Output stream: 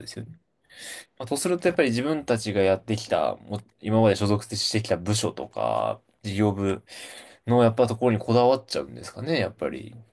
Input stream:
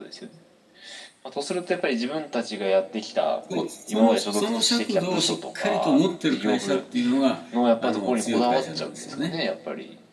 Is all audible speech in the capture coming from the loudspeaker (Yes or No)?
No